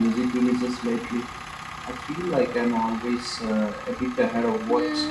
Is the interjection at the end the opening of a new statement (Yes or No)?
Yes